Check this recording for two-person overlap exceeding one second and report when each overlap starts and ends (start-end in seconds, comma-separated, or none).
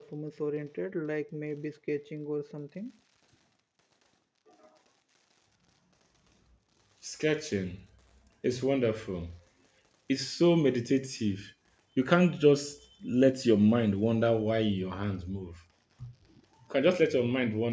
none